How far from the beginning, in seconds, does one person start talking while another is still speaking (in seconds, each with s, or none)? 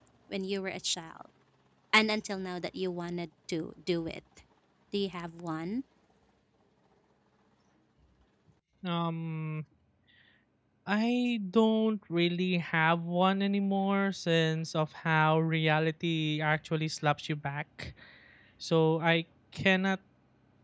none